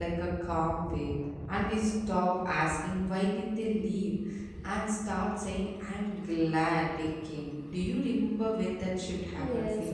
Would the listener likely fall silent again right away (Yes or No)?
No